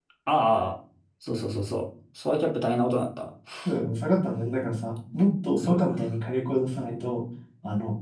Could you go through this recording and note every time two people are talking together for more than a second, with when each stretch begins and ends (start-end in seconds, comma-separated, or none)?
none